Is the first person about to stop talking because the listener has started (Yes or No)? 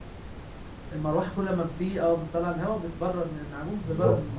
Yes